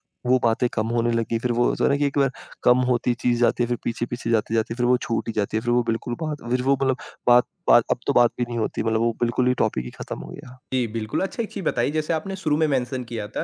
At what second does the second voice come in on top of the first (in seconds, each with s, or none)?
none